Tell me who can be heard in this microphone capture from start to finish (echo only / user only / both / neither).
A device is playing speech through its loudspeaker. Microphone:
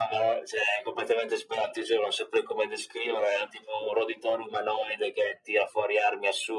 echo only